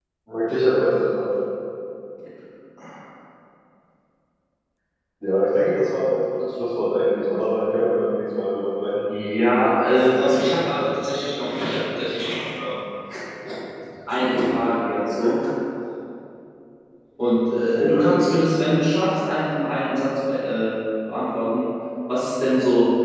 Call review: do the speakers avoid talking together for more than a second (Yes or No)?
Yes